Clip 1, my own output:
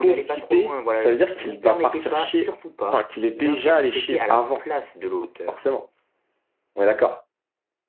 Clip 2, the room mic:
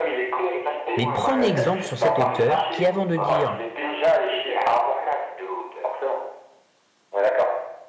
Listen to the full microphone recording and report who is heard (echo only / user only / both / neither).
both